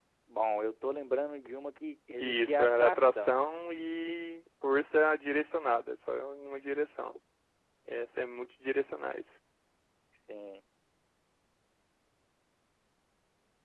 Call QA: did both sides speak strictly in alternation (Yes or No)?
No